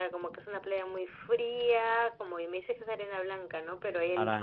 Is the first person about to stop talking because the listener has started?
No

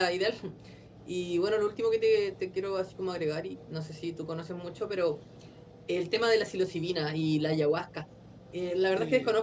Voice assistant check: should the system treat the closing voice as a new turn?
No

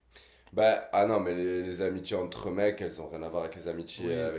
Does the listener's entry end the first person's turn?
No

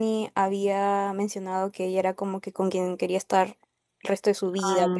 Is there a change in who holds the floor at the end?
No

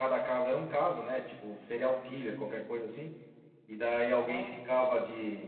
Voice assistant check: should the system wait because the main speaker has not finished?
Yes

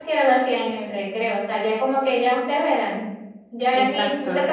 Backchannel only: Yes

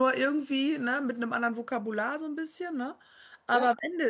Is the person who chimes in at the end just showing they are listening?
Yes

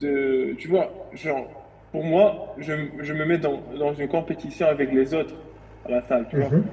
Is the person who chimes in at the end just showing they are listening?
Yes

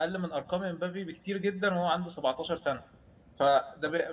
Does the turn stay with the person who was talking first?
Yes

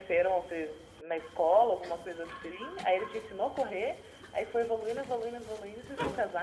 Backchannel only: No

